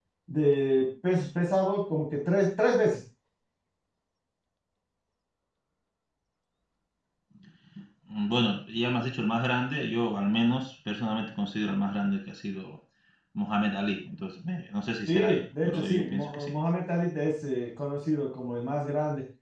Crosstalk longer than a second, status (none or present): present